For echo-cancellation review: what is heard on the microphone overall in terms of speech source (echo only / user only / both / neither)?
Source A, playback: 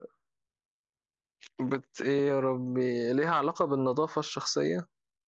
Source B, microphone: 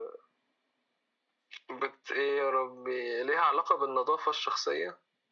echo only